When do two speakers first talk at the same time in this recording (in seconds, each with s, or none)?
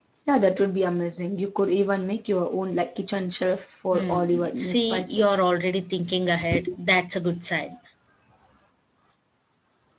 3.9 s